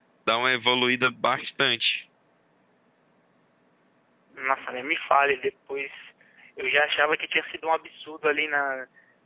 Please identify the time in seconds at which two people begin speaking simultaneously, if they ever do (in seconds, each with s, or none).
none